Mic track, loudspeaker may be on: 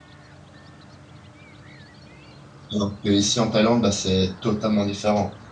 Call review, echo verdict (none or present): none